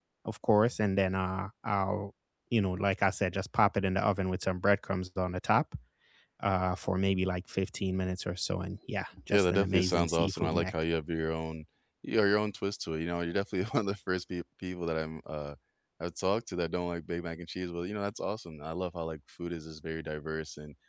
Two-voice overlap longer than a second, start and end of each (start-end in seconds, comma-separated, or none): 9.3-10.7